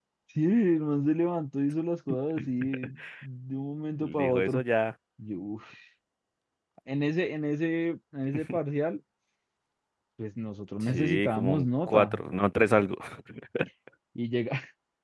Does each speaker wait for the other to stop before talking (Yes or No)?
No